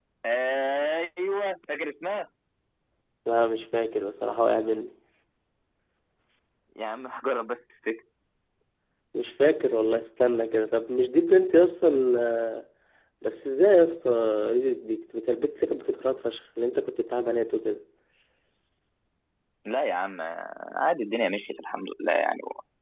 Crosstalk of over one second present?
No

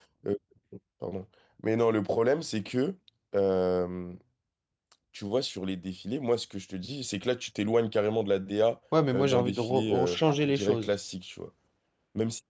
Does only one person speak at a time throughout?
No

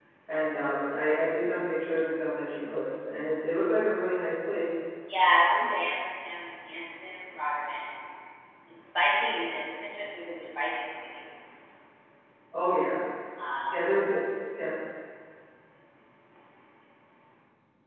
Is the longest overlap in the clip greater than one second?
No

